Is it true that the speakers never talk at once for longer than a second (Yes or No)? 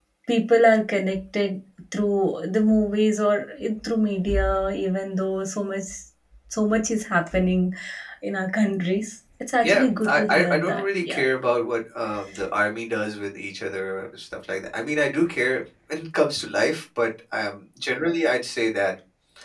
No